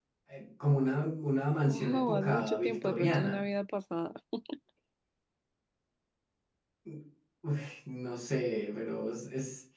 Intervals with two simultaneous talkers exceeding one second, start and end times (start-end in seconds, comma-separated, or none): 1.7-3.4